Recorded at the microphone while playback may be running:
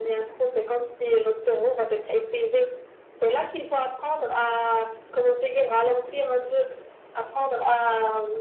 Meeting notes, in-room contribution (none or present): none